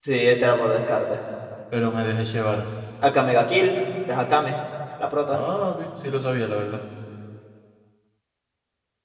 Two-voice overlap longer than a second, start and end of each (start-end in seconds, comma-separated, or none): none